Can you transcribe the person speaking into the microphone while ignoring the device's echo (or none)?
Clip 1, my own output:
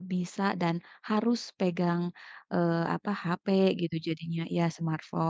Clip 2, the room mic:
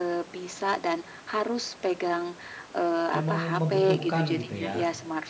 emang membutuhkan gitu ya.